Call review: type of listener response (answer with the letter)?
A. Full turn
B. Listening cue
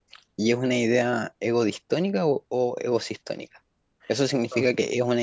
B